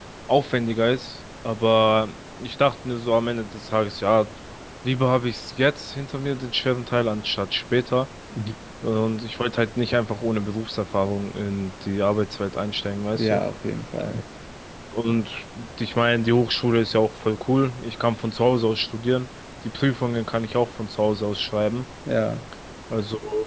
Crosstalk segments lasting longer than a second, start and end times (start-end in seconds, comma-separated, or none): none